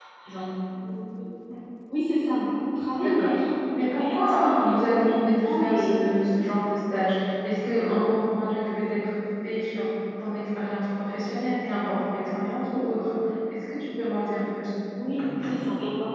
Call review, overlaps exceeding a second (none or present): present